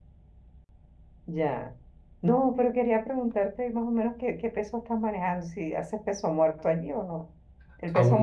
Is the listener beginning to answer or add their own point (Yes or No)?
No